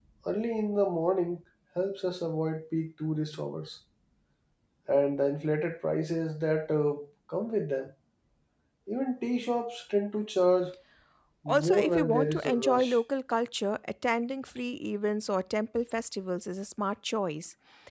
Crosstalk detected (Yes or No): Yes